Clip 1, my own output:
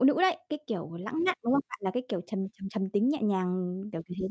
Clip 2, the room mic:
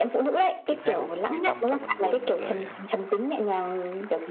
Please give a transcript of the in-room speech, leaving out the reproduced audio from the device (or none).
Chính xác luôn, Mỹ Tâm, Phan Mạnh Quỳnh rồi, ờ,